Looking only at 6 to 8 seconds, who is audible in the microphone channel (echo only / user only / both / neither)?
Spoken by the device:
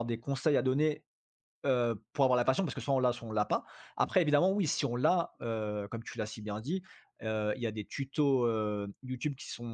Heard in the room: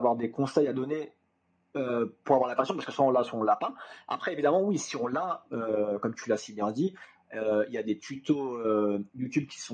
echo only